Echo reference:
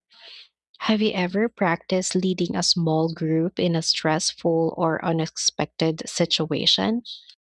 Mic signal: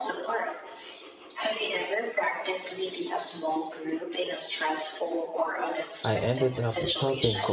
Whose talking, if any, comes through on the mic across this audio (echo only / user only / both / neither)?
both